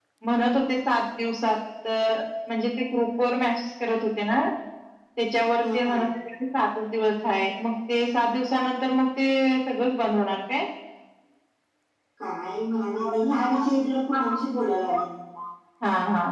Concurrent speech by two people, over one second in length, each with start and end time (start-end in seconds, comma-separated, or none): none